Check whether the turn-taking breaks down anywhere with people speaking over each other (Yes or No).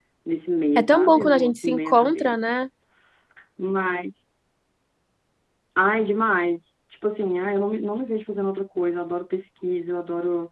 Yes